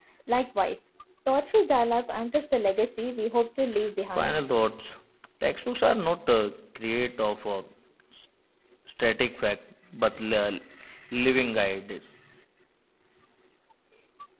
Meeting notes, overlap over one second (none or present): none